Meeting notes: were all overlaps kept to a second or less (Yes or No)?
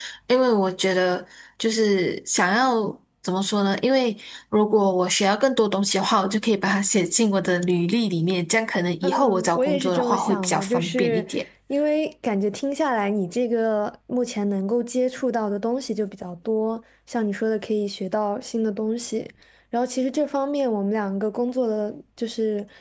No